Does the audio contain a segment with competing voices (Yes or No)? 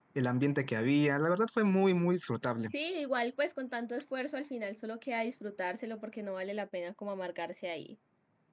No